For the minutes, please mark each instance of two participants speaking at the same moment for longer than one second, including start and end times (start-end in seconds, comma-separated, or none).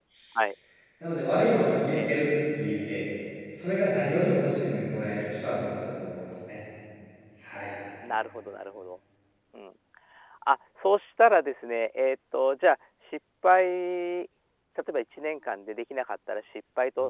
none